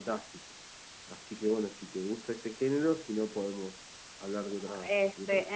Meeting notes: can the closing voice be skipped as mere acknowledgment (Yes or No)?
No